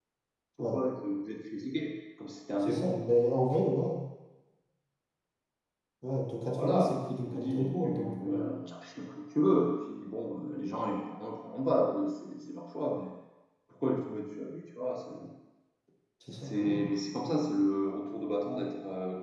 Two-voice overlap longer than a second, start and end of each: 6.5-8.5

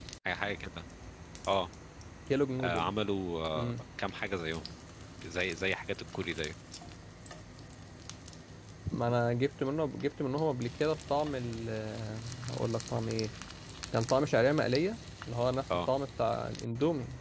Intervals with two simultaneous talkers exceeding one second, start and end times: none

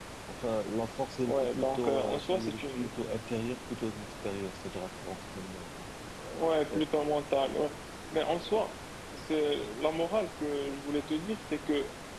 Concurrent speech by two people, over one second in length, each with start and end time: 1.3-2.9

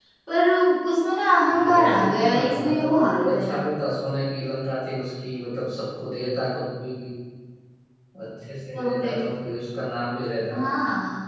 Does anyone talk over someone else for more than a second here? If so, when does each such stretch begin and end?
1.5-3.6

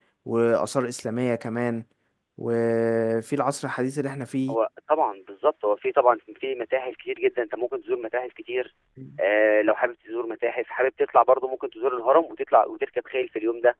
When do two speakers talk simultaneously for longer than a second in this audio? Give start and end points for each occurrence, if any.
none

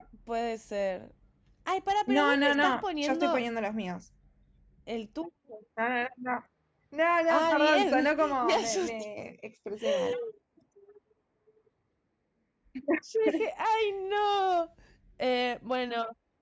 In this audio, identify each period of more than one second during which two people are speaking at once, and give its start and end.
2.1-3.4, 7.3-8.9

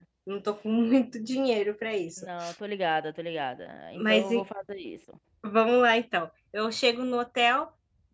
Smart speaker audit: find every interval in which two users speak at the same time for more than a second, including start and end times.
none

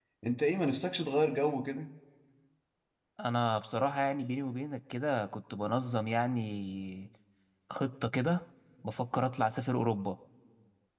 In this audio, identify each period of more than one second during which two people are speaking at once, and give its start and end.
none

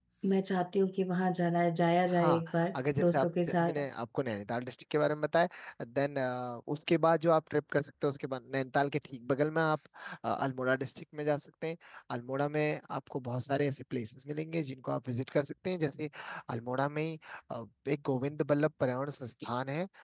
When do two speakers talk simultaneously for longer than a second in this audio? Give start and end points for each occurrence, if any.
2.2-3.8

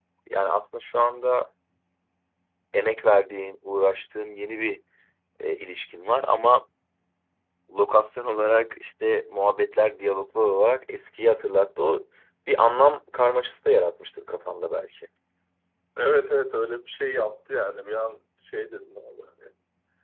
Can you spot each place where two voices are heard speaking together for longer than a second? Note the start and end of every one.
none

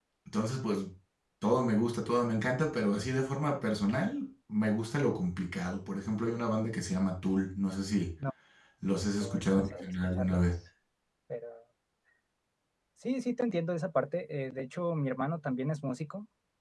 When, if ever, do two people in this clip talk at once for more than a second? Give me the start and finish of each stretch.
9.2-10.4

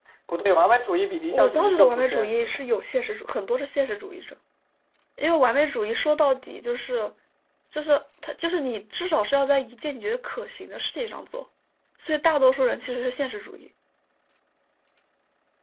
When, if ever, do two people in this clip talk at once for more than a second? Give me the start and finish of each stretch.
1.3-2.6

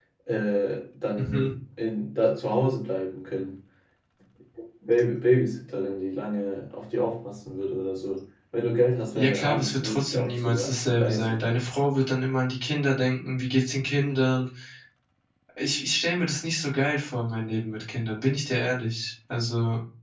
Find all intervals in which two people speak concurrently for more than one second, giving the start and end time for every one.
9.1-11.4

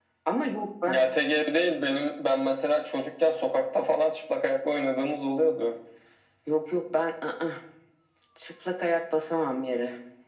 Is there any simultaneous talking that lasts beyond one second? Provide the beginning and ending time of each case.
none

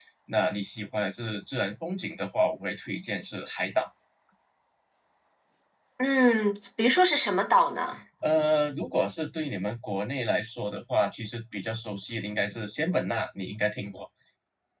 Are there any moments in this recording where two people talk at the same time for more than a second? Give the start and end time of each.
none

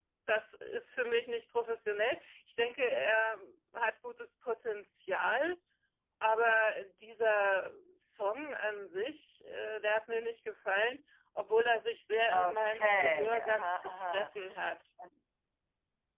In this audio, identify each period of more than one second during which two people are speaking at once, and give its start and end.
12.3-14.3

